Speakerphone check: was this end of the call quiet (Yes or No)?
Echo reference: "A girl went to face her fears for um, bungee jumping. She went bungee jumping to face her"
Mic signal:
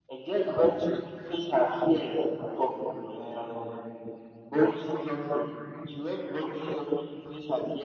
Yes